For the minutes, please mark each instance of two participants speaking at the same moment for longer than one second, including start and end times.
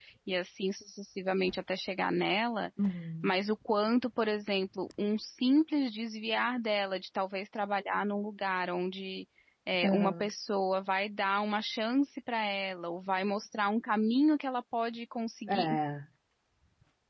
none

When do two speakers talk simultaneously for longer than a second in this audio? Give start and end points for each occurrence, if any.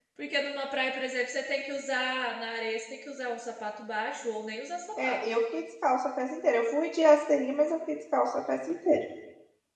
none

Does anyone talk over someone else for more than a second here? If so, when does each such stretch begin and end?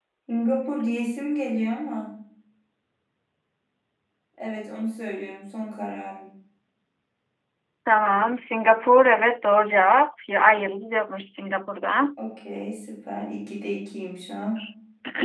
none

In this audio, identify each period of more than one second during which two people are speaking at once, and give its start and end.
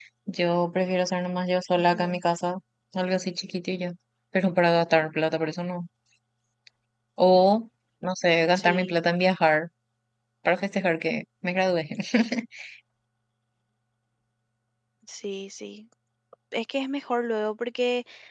none

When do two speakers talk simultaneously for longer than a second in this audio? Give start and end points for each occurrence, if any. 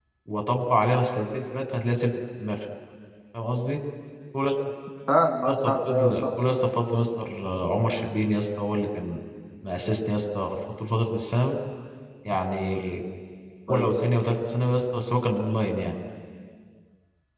5.4-6.6

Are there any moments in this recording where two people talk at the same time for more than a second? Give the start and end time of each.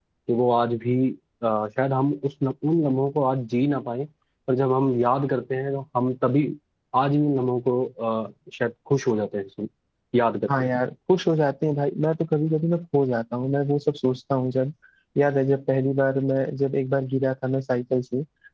none

